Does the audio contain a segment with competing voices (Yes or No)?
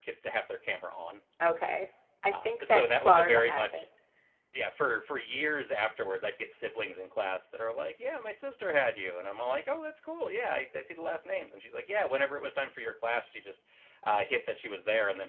Yes